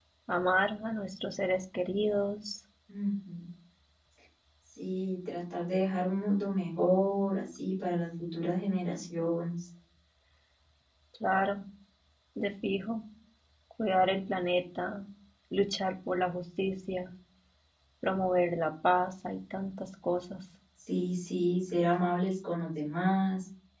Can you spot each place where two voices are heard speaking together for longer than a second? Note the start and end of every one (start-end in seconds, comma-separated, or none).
none